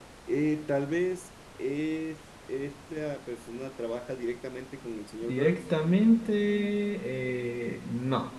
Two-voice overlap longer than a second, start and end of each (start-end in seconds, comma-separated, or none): none